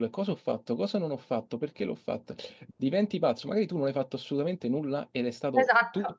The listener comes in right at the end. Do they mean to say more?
No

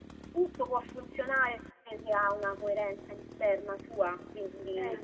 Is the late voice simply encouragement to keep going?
Yes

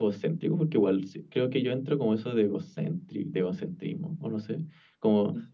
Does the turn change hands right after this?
No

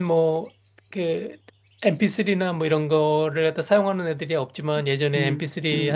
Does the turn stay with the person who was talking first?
Yes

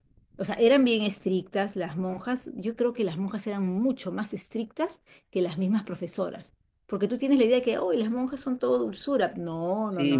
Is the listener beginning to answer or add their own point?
Yes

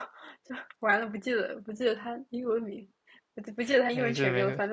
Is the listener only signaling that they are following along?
No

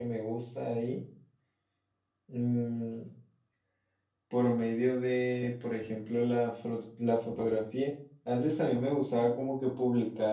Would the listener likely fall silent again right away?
Yes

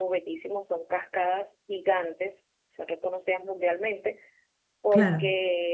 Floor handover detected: No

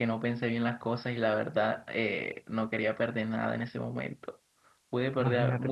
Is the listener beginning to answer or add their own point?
Yes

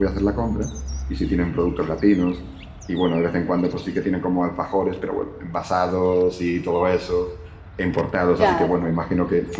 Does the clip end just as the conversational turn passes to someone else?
No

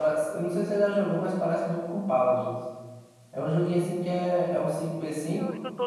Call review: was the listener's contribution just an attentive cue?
No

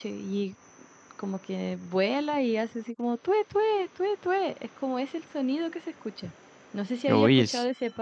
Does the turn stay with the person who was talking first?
Yes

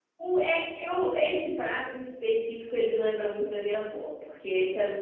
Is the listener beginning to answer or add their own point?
No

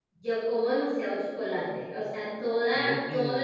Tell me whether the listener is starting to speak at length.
No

